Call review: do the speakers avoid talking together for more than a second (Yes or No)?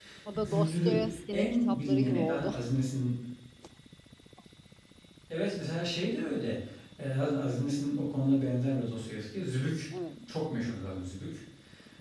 No